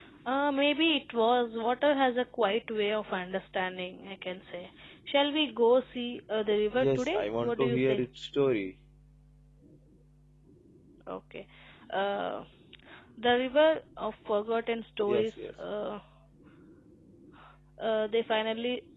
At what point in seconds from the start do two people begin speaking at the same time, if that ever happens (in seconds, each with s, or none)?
6.7 s